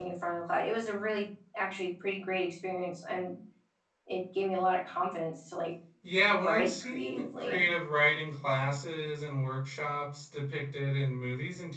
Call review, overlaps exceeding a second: present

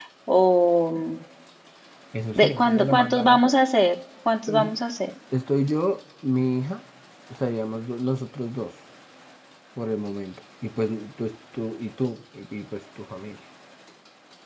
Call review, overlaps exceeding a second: present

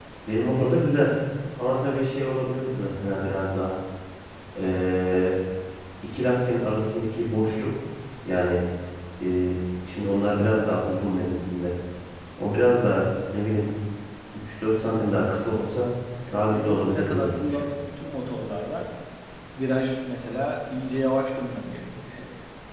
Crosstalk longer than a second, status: present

